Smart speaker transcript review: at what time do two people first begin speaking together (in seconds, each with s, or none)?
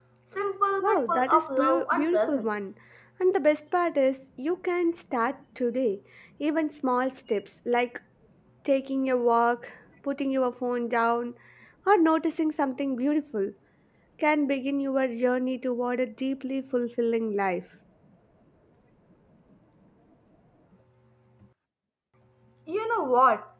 0.8 s